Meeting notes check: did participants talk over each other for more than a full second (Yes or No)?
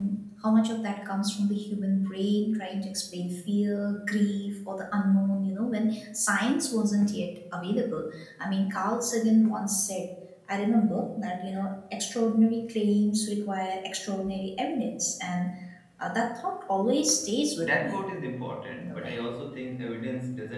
No